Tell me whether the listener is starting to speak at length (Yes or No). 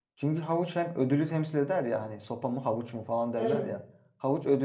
No